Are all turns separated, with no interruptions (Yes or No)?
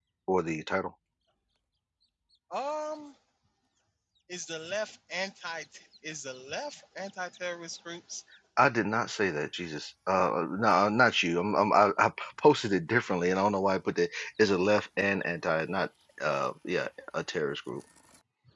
Yes